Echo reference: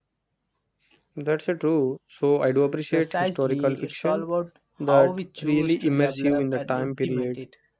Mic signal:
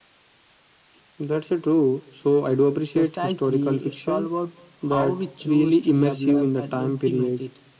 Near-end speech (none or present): none